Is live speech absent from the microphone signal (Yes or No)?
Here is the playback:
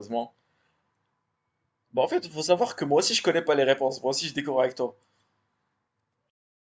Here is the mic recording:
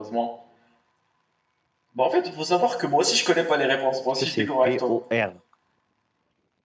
No